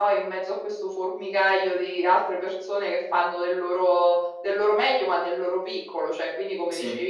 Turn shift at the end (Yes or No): No